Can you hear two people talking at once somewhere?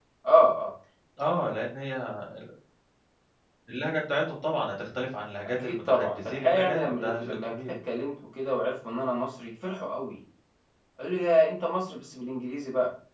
Yes, from 5.4 s

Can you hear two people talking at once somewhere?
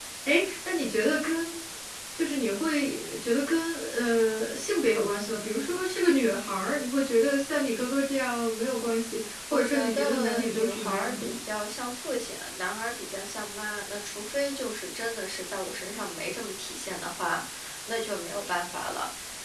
Yes, from 9.5 s

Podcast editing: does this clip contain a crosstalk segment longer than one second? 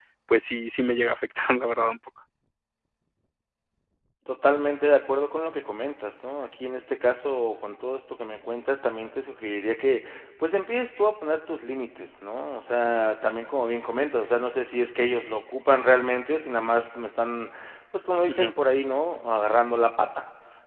No

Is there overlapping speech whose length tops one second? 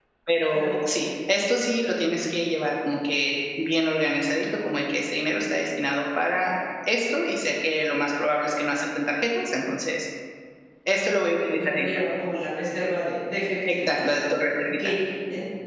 No

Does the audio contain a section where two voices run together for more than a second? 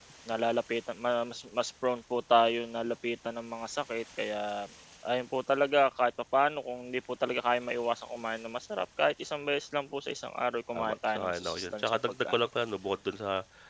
Yes, from 10.7 s

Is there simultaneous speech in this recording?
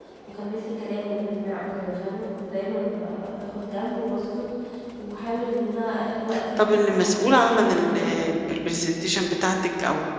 Yes, from 6.6 s

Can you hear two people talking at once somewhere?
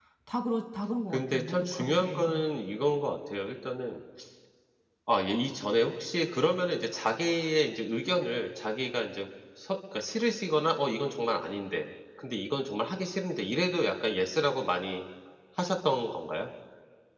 Yes, from 1.1 s

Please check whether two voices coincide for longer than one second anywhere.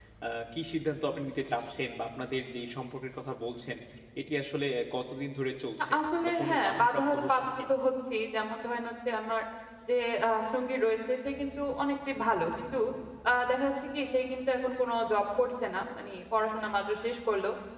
Yes, from 5.9 s

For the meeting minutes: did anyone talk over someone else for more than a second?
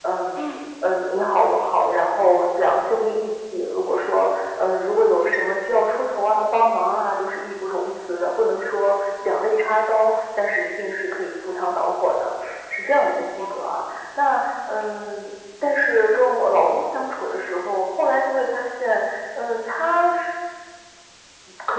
No

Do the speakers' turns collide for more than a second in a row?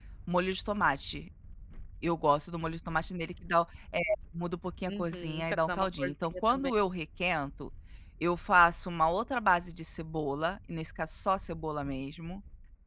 Yes, from 4.9 s

